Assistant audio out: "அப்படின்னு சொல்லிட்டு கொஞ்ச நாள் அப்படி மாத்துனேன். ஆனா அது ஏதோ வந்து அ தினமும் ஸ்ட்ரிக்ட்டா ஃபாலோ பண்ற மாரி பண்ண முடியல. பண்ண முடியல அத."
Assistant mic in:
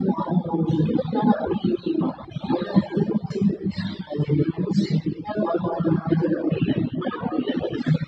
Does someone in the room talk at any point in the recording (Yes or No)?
No